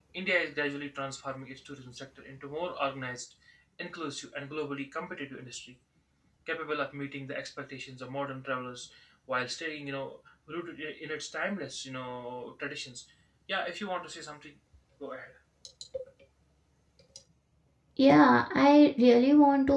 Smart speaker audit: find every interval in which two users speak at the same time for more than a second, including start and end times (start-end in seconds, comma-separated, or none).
none